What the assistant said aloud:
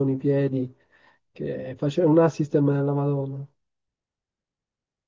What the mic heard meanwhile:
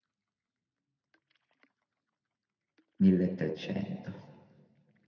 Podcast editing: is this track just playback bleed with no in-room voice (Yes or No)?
No